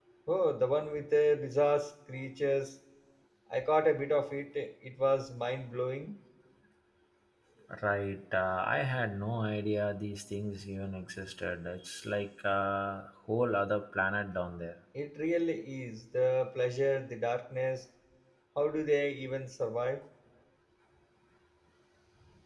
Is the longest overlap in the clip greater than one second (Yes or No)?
No